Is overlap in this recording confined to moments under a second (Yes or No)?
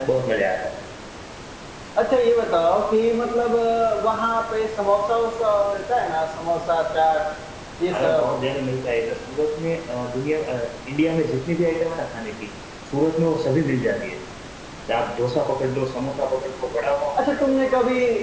Yes